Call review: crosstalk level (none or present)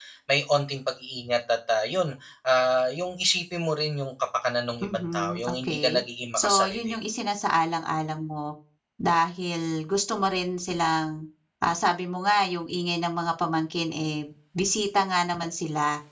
present